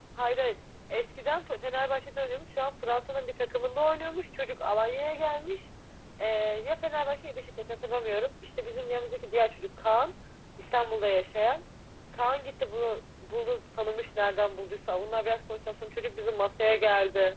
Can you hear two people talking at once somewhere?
No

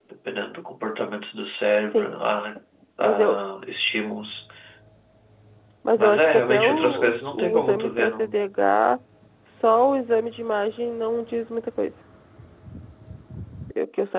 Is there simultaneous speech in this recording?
Yes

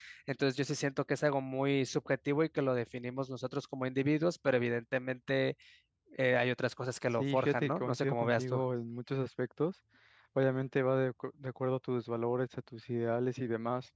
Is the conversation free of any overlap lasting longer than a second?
No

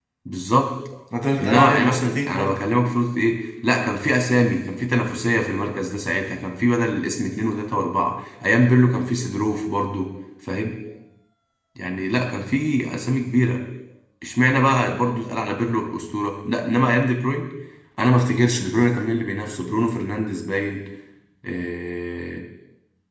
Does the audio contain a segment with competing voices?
Yes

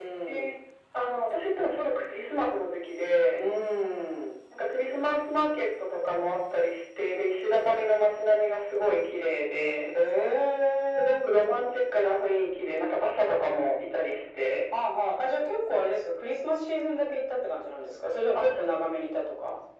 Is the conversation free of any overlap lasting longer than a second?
Yes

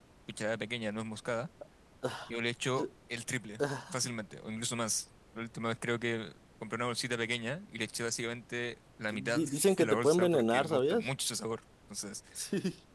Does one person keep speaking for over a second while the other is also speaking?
Yes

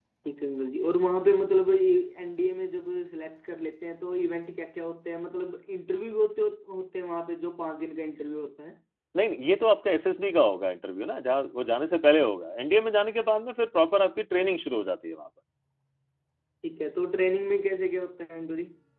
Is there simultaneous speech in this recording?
No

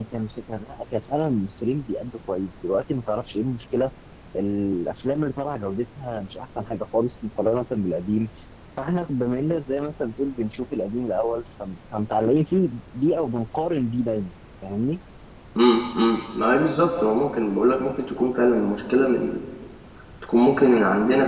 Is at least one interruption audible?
No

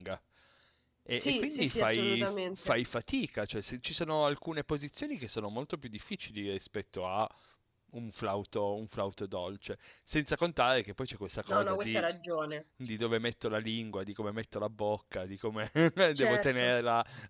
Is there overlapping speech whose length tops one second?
Yes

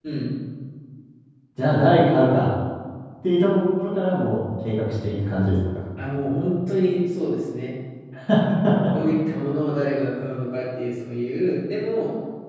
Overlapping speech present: No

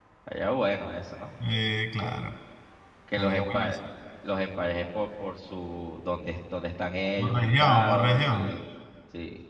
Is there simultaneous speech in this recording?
Yes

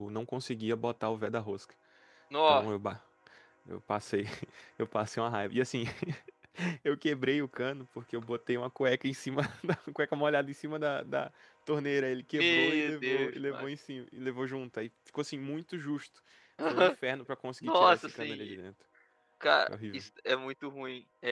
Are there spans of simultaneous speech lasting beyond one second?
Yes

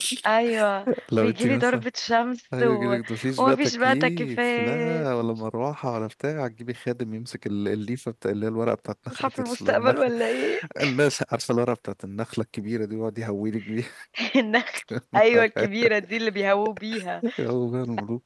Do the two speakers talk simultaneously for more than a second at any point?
Yes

